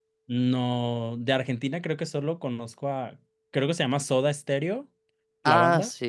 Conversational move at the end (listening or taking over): taking over